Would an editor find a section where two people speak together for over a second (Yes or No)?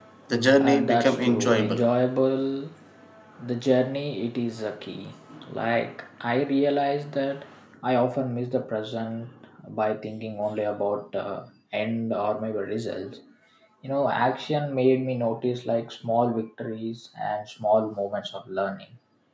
Yes